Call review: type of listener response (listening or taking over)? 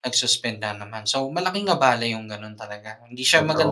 listening